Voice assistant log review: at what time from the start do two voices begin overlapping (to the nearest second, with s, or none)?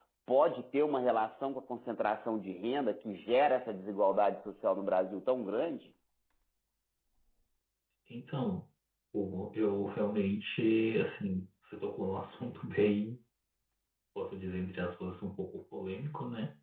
none